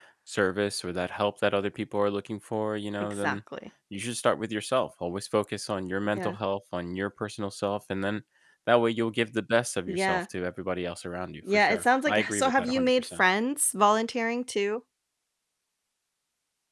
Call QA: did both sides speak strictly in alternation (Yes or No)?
No